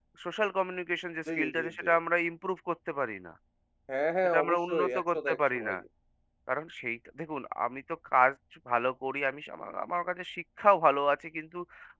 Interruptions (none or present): present